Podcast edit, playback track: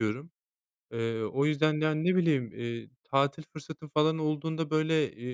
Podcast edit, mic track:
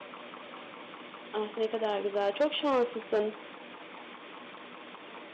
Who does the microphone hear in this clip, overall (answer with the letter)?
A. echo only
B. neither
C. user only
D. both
C